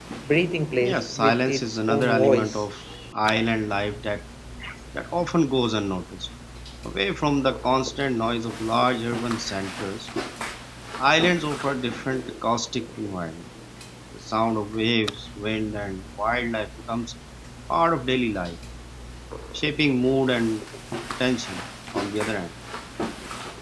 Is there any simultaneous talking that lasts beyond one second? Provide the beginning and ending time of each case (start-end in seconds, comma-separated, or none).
0.8-2.6